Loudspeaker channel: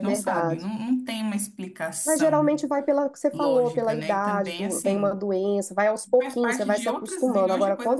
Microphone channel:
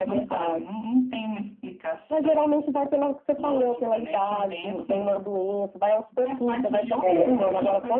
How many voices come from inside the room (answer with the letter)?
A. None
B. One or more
B